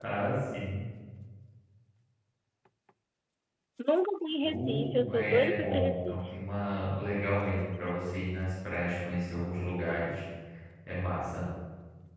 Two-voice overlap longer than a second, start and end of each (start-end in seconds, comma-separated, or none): 4.4-6.2